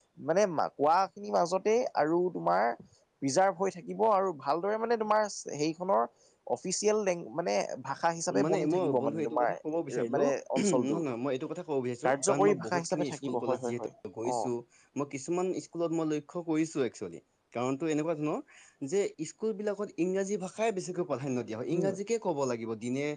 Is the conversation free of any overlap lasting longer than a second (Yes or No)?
No